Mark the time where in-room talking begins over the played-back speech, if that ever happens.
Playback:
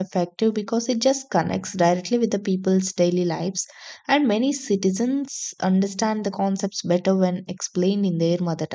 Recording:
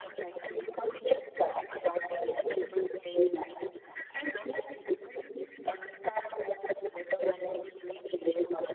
none

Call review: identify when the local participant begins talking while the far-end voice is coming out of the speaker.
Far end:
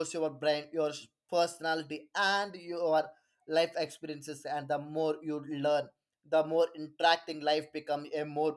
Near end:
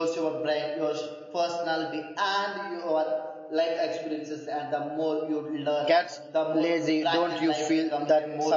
6 s

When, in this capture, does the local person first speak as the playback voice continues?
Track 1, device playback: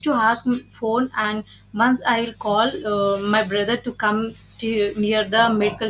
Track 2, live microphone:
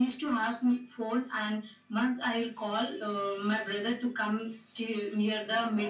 none

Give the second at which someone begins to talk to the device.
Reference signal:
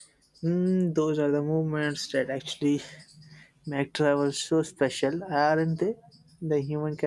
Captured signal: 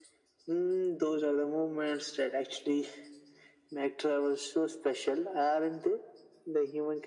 none

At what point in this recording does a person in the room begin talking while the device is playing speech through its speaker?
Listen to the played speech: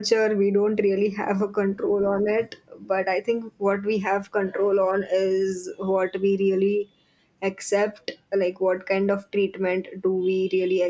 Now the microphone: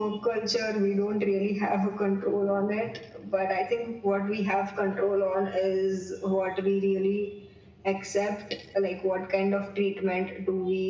none

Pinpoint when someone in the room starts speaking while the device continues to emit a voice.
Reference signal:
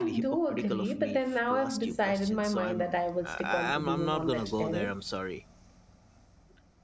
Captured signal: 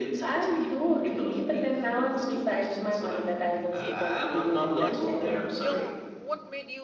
3 s

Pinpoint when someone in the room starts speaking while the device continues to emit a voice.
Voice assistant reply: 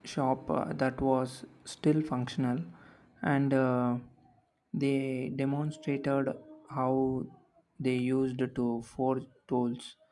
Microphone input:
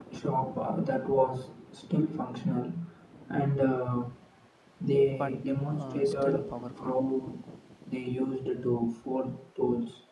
5 s

